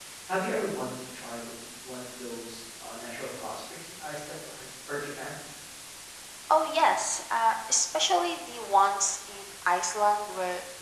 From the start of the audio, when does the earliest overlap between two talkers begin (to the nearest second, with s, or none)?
none